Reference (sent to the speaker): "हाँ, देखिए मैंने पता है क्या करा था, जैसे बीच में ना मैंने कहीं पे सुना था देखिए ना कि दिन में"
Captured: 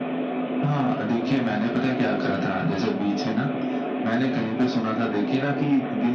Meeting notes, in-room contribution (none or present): none